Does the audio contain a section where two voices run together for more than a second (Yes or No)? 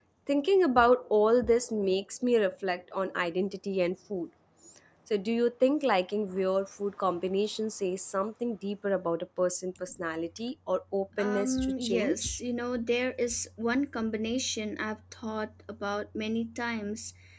Yes